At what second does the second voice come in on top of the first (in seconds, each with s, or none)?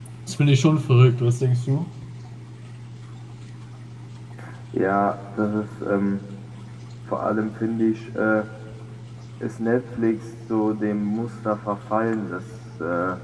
none